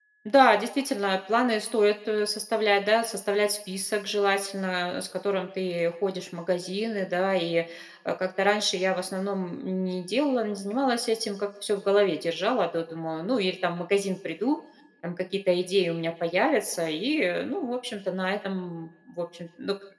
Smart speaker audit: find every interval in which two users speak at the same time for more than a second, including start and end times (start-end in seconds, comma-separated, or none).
none